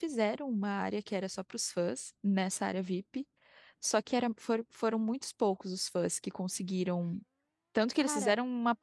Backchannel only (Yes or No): Yes